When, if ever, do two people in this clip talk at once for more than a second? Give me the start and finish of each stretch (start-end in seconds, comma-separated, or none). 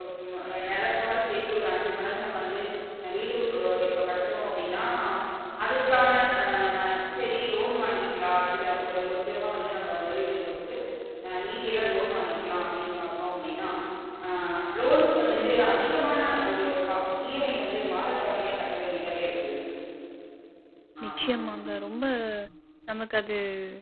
none